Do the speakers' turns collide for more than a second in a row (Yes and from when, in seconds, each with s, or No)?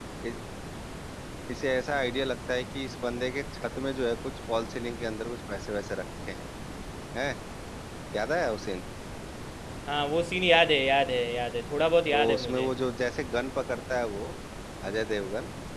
No